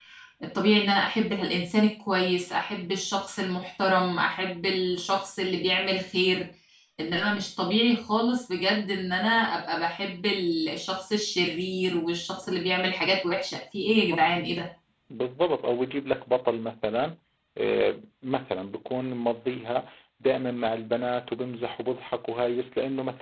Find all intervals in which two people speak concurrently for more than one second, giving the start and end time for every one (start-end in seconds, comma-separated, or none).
none